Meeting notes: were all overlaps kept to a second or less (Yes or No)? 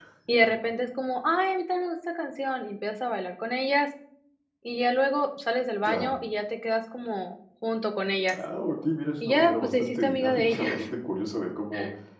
No